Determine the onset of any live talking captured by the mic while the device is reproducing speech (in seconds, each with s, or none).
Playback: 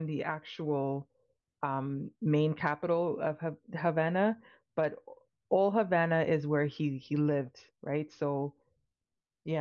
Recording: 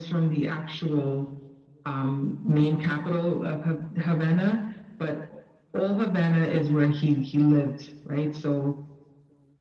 none